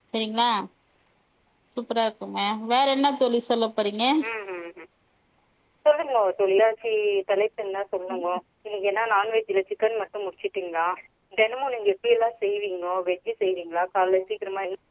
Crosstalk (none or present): none